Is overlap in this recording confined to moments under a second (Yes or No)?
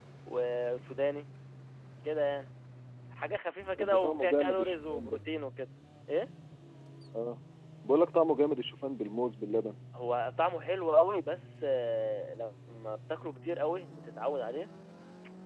No